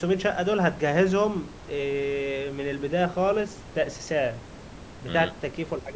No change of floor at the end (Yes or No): Yes